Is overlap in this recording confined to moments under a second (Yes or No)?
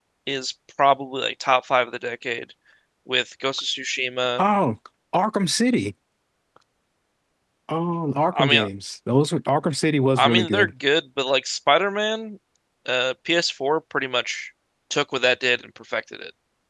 Yes